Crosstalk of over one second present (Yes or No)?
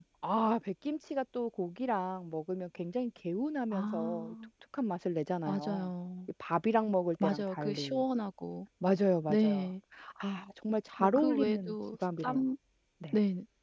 Yes